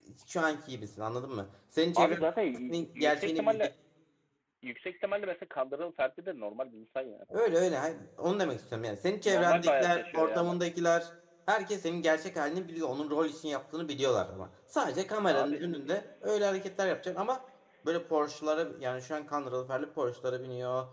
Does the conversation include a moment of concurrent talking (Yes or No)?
Yes